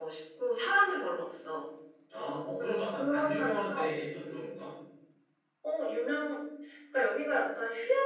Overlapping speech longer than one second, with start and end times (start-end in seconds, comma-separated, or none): 2.6-3.9